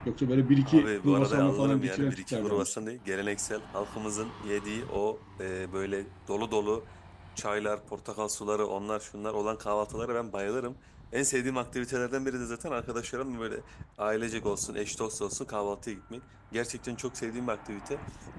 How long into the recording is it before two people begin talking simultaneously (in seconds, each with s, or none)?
0.7 s